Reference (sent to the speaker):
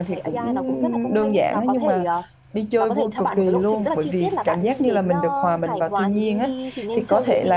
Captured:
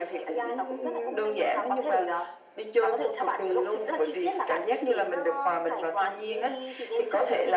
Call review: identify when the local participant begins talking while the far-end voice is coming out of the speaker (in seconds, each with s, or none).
none